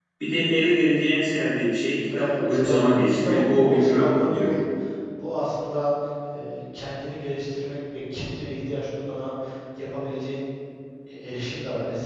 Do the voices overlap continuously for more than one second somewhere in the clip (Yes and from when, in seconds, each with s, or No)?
Yes, from 2.1 s